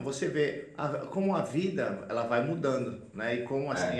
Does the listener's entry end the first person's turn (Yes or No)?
No